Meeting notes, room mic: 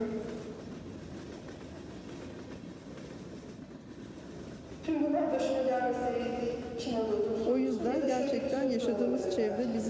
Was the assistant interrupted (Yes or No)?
Yes